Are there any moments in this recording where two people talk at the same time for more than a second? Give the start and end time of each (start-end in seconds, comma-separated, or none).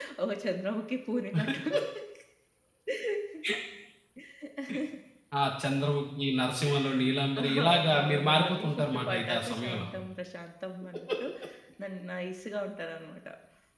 7.4-9.9